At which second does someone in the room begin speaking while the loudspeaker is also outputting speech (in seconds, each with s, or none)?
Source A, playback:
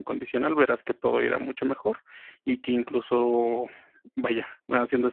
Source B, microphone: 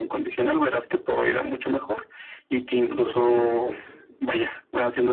2.8 s